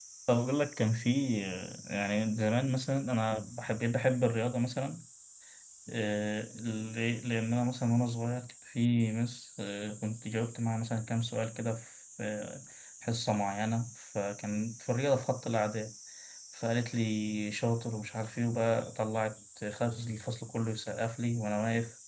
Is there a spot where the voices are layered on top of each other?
No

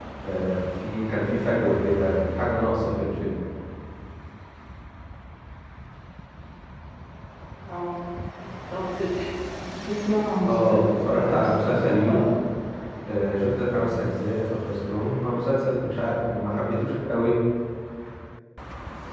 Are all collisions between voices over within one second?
No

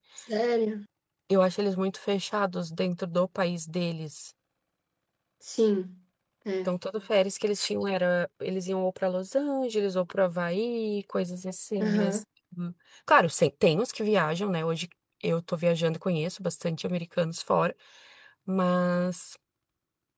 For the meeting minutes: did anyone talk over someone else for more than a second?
No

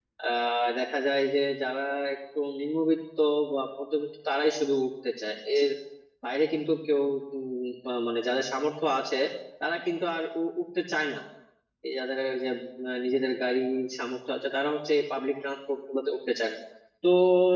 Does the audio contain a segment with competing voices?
No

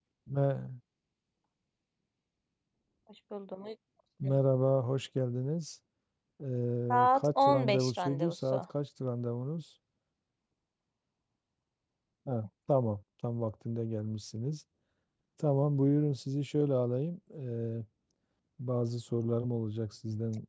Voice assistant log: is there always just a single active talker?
No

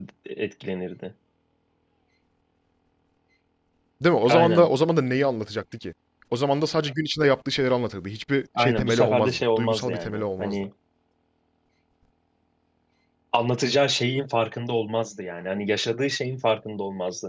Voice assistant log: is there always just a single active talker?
No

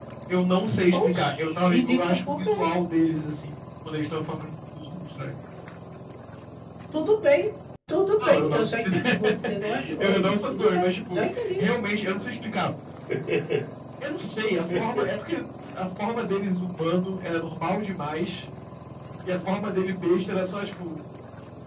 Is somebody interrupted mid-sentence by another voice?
Yes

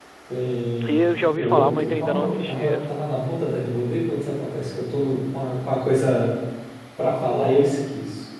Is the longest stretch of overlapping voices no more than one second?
No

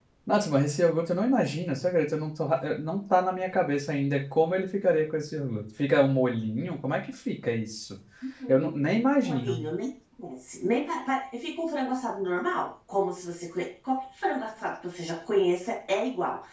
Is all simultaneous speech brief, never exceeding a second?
Yes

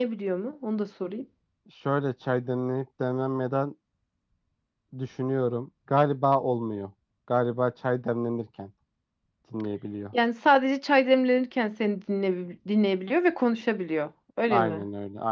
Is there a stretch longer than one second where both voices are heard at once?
No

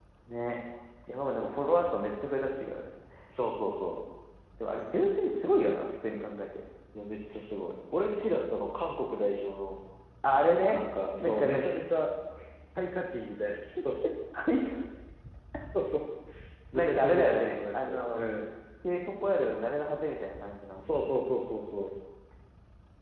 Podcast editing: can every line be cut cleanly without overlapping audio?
No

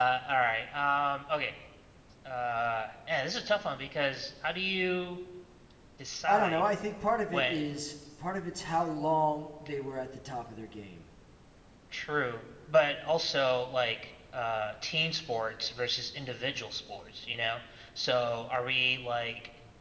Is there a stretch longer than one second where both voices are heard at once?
No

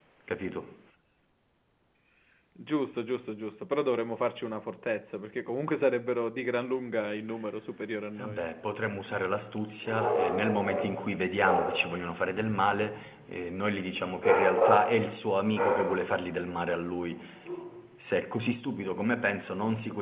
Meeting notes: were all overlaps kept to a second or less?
Yes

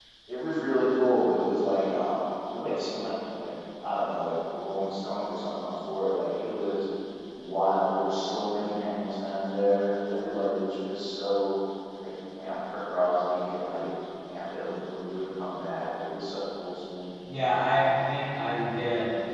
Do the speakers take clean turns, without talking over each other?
Yes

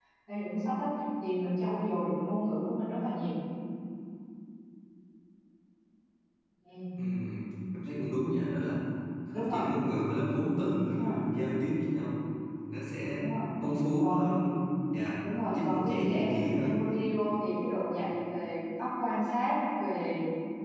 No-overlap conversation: No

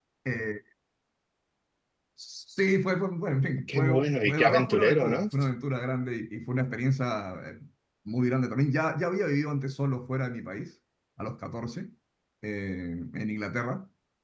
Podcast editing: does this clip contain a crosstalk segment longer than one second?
Yes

